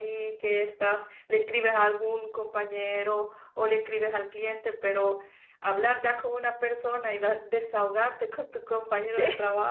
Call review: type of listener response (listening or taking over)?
listening